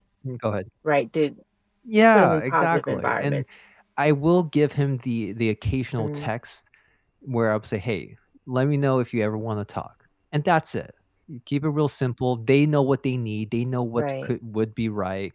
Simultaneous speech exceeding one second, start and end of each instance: 2.1-3.4

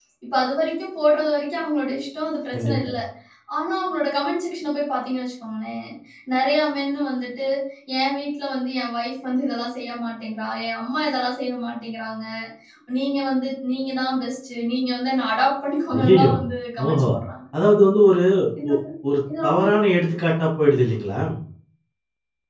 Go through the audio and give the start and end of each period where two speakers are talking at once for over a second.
none

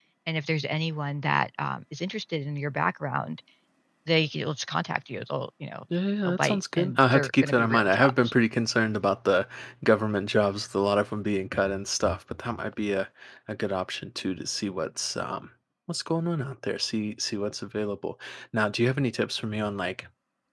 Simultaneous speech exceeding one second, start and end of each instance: 6.2-8.3

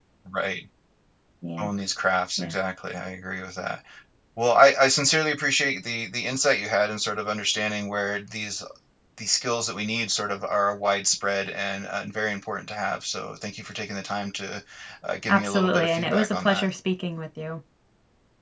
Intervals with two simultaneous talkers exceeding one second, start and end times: 15.3-16.7

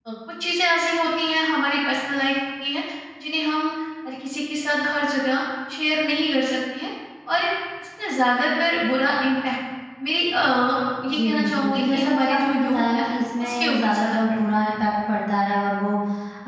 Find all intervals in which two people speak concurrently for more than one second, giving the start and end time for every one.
11.1-13.0, 13.4-14.7

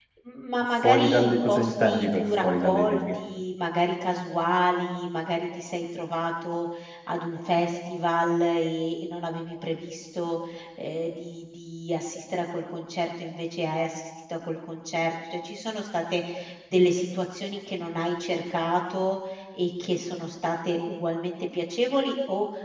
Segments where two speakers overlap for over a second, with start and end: 0.8-3.2

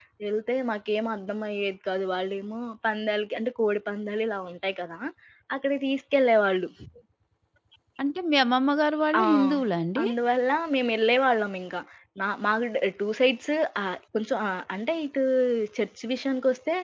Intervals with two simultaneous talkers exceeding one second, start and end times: none

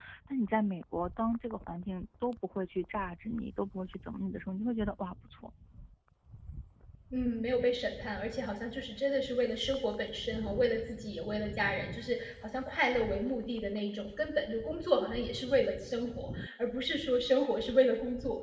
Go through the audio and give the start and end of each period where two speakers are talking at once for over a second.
none

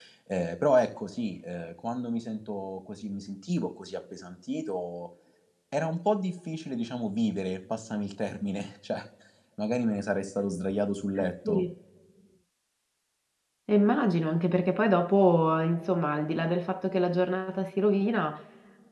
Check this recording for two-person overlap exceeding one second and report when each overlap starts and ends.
none

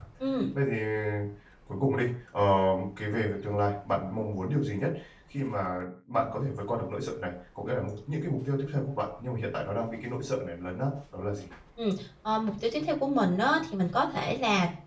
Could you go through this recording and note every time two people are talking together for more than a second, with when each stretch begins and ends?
none

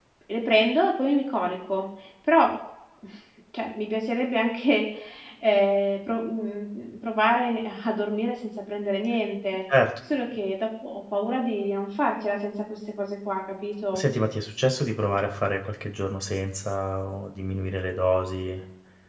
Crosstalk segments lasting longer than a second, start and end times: none

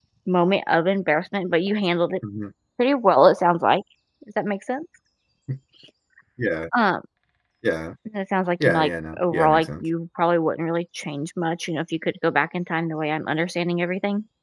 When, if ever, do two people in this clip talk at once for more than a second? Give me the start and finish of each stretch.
8.6-9.8

